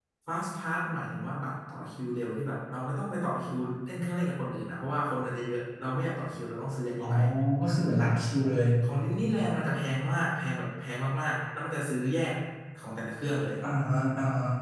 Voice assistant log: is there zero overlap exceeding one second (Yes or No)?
Yes